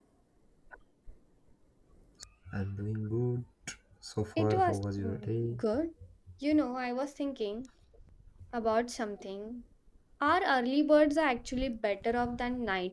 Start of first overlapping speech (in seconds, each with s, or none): 4.4 s